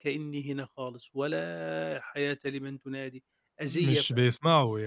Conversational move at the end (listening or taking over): taking over